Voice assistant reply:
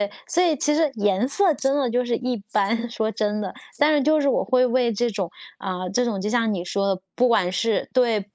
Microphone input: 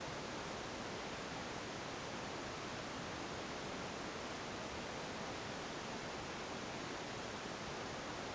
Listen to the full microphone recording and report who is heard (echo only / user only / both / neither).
neither